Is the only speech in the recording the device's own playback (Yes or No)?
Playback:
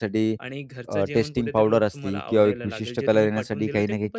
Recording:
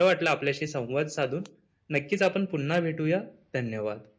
No